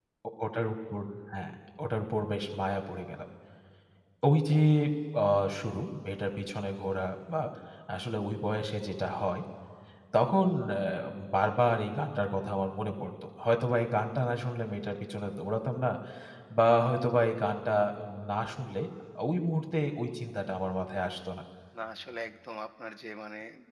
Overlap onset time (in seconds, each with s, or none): none